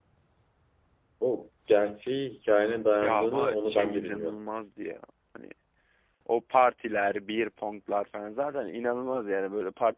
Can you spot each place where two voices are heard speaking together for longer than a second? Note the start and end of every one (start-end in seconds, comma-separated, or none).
3.0-4.3